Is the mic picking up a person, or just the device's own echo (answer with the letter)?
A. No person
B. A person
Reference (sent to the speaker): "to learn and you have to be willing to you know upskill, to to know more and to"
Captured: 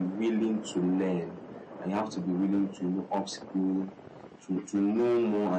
A